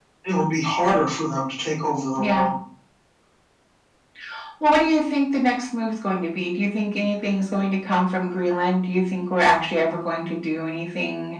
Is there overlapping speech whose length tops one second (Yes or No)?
No